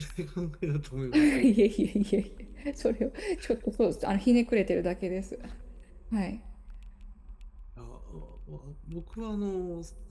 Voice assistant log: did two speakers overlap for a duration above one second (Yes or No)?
No